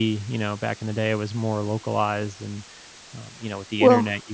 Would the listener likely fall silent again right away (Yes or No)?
Yes